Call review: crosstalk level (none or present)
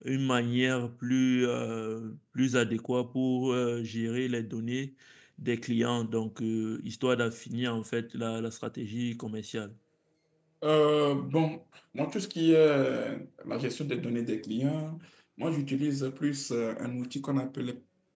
none